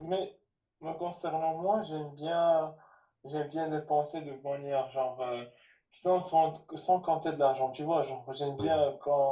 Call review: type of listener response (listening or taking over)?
listening